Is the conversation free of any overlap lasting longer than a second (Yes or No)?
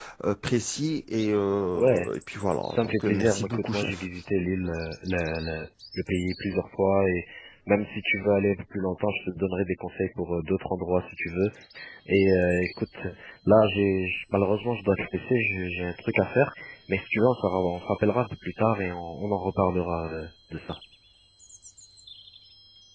No